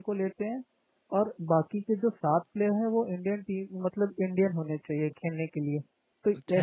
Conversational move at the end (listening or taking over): taking over